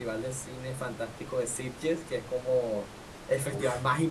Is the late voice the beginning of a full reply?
No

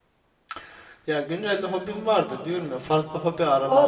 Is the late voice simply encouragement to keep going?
No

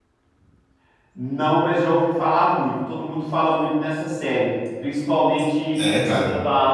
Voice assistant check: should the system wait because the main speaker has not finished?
Yes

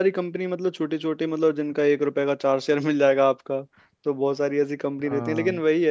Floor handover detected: No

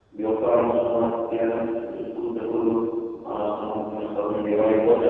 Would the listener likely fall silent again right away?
No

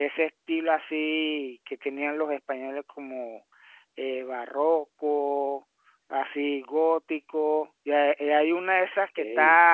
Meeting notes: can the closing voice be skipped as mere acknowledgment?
Yes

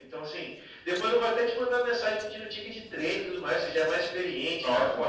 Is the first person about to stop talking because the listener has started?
No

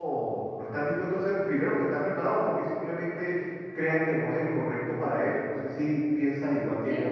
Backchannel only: No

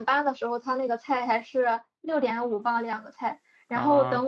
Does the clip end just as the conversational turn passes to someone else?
No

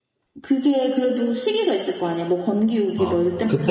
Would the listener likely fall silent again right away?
No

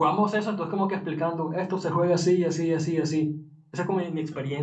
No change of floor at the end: Yes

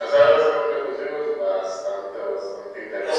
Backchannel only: No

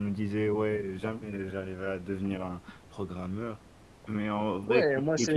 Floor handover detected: Yes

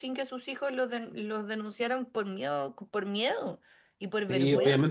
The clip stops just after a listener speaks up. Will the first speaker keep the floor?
No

